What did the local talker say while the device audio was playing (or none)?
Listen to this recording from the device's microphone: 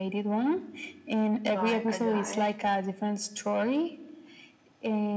by a guy